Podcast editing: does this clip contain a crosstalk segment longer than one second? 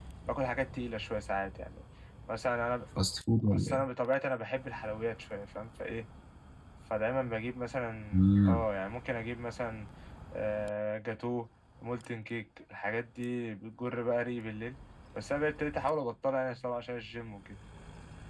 No

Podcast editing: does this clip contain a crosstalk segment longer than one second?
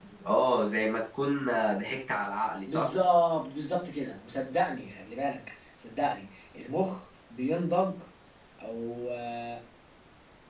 No

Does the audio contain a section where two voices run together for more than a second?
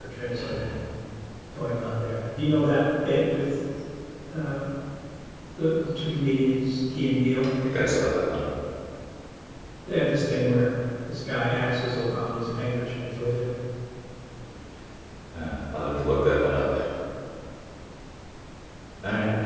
No

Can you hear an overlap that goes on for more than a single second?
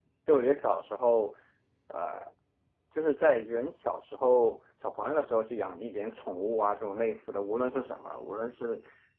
No

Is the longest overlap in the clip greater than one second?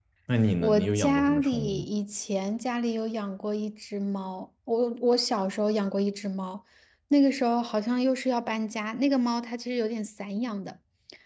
Yes, from 0.6 s

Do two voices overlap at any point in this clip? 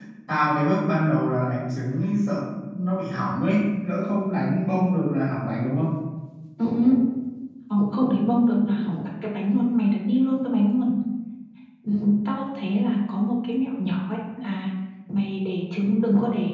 No

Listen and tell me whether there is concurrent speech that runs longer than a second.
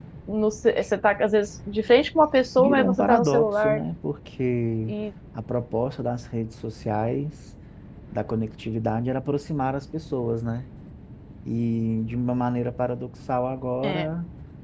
Yes, from 2.6 s

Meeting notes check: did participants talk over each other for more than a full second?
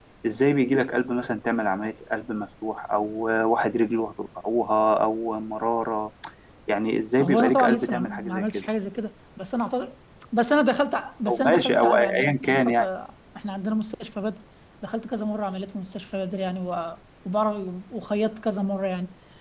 Yes, from 7.2 s

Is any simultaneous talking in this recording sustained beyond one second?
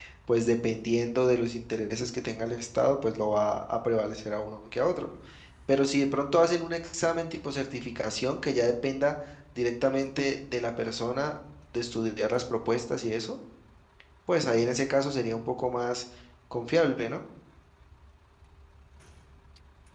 No

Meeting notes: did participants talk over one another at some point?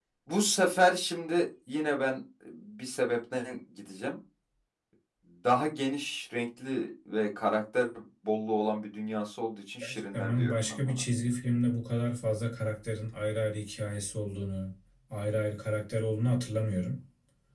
Yes, from 9.8 s

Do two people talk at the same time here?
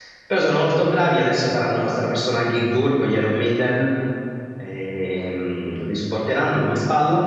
No

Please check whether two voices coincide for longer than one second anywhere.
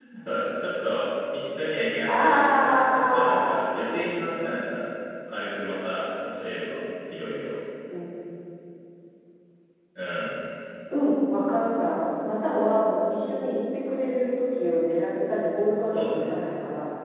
Yes, from 2.0 s

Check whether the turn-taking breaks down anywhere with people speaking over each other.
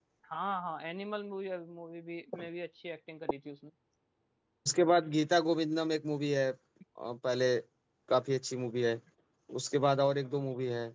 No

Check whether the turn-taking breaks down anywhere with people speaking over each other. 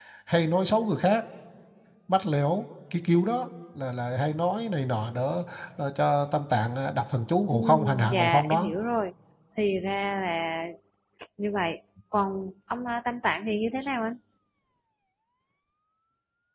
Yes, from 7.5 s

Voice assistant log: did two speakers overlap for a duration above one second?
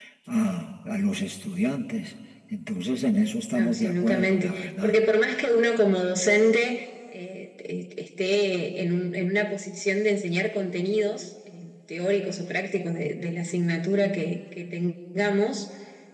Yes, from 3.5 s

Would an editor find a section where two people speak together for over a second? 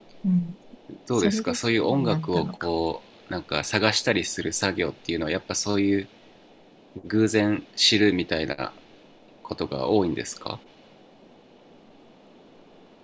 Yes, from 1.1 s

